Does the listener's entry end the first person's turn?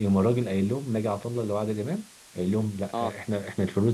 No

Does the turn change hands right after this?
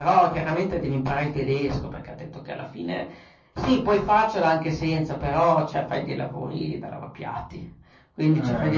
No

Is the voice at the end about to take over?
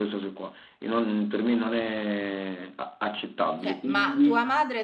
Yes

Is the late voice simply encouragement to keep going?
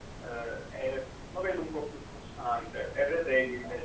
Yes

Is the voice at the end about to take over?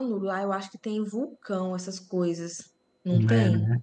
Yes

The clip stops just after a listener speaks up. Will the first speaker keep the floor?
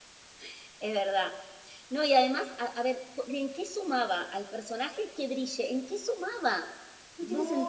No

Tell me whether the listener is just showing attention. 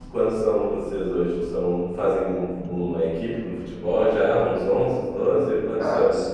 No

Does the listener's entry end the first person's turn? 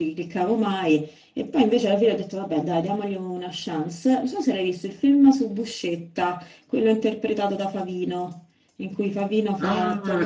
Yes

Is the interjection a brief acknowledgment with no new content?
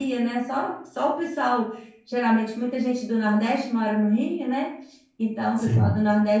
Yes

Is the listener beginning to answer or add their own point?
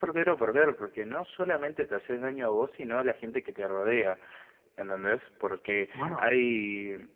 No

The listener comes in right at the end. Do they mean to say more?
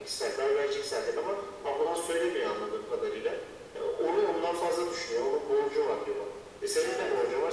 No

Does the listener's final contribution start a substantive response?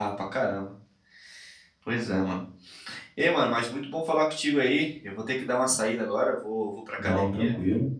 No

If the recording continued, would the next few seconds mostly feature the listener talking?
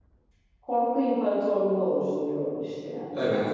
Yes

